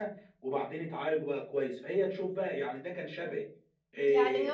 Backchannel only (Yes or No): No